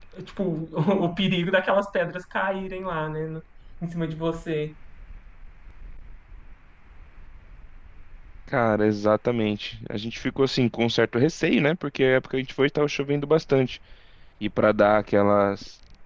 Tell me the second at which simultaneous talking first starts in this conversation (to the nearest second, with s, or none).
none